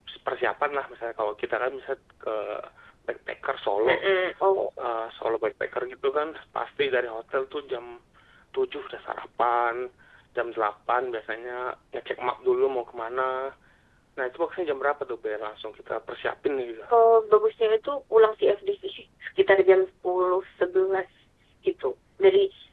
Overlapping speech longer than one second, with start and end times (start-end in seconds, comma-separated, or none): none